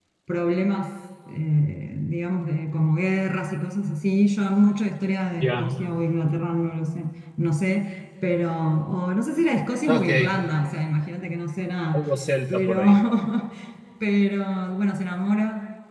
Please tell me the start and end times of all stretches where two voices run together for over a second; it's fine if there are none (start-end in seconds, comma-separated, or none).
none